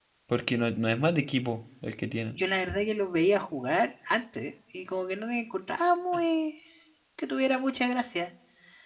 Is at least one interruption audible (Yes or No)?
No